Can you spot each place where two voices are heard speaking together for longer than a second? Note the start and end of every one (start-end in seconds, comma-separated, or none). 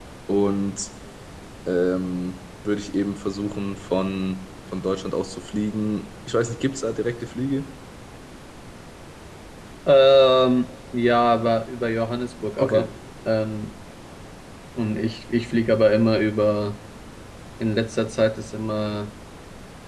none